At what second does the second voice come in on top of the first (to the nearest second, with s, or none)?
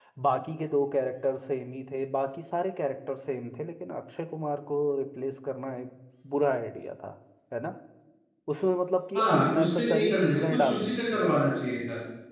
9 s